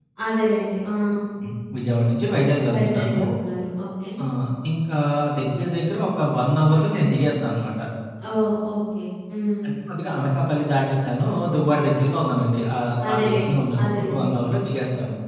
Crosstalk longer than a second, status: present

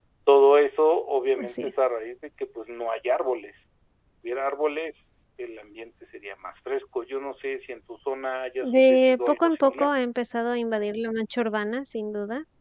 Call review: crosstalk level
present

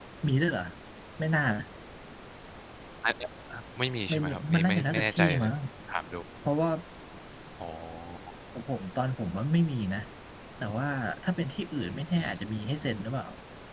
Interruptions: present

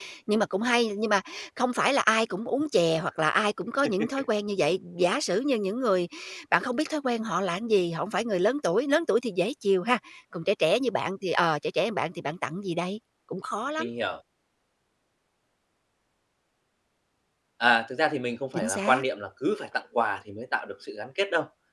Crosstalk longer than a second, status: none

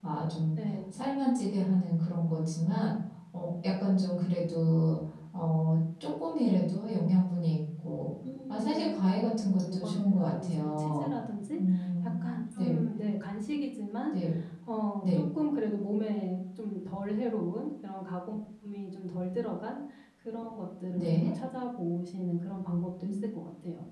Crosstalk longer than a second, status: present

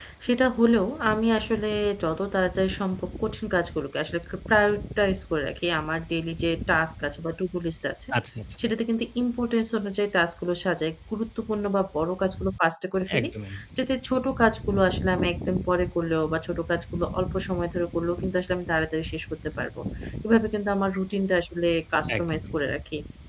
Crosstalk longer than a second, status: none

